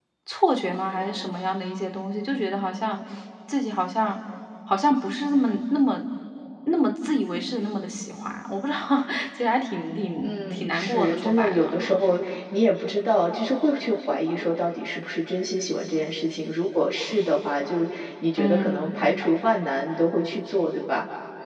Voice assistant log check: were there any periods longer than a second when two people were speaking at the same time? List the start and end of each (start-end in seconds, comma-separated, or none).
10.2-12.0